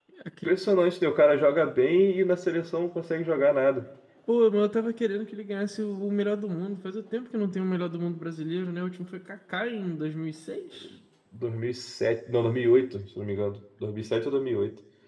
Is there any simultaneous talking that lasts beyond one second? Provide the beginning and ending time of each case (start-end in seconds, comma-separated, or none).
none